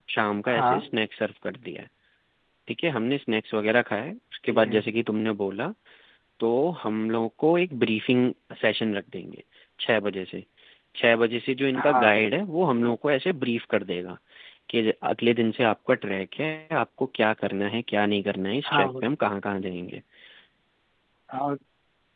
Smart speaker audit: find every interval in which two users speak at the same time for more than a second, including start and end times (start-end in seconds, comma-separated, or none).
none